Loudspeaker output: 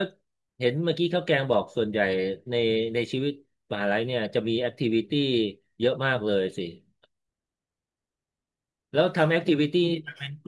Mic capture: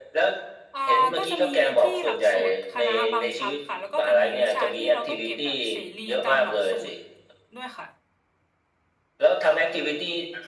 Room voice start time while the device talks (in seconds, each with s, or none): 0.7 s